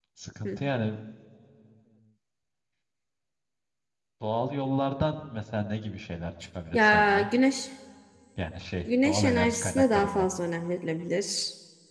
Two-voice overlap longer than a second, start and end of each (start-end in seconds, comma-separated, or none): 9.0-10.3